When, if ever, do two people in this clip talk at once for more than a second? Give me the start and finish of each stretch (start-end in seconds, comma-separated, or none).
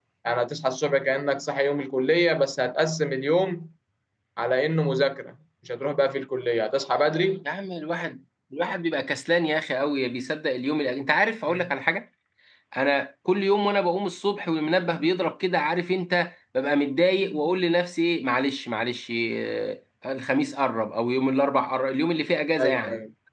none